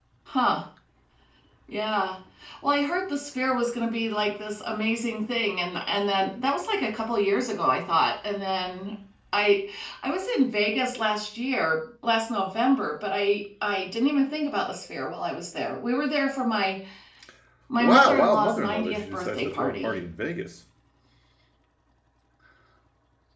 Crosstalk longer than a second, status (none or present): present